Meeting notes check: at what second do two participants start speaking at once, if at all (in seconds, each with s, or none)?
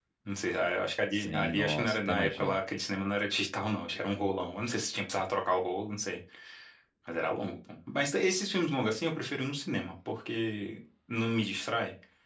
1.1 s